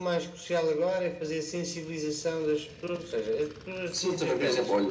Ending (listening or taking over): taking over